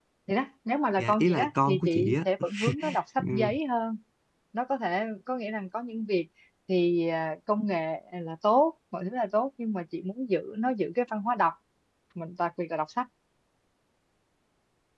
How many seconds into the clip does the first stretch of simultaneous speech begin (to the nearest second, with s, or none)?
1 s